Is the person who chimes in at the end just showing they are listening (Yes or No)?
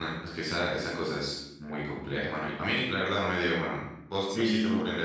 No